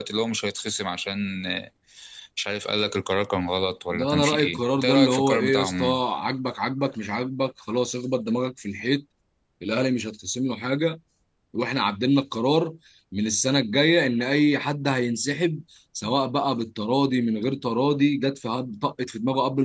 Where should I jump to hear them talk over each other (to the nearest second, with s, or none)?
4 s